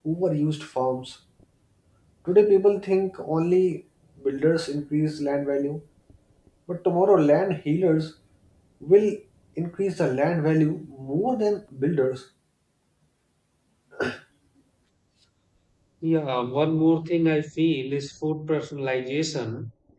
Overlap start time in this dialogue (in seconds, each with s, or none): none